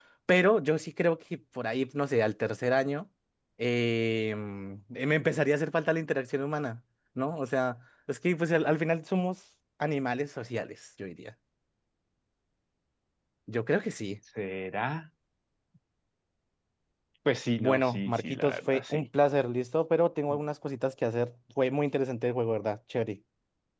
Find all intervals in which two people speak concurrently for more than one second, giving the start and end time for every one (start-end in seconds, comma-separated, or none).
17.6-19.1